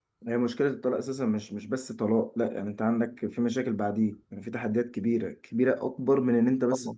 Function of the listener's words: listening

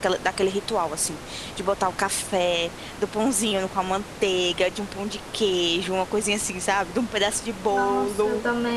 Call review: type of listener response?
taking over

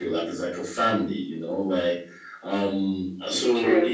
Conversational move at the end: listening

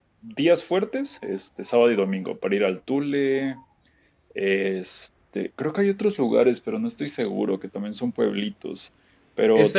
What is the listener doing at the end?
taking over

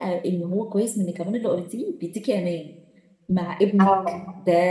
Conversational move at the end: listening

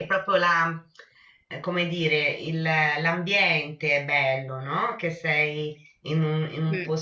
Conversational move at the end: listening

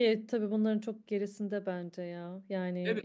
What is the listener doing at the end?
taking over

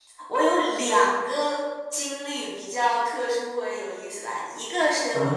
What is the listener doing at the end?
listening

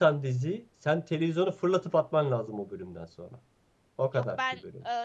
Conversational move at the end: taking over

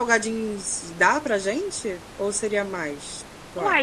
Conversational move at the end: taking over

